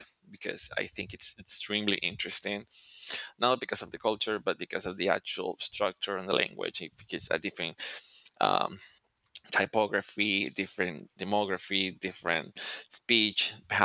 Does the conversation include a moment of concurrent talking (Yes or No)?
No